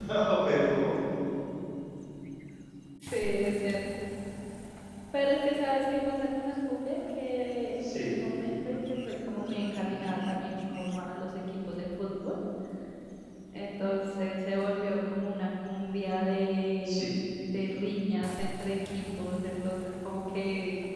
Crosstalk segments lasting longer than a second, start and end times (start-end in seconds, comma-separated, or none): none